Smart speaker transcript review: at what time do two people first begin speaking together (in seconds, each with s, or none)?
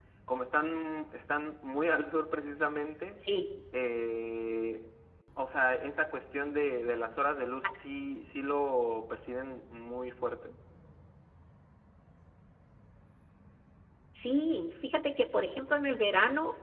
none